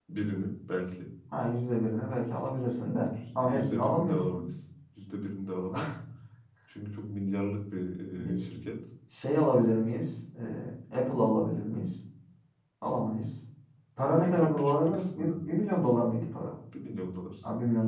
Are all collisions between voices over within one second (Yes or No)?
No